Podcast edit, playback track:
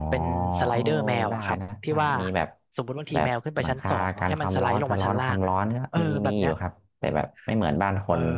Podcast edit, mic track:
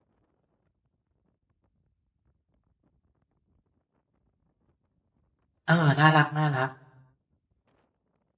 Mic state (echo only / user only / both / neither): user only